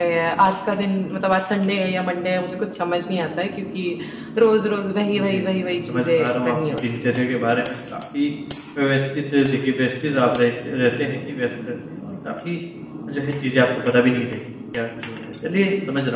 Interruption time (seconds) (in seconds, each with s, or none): 5.1 s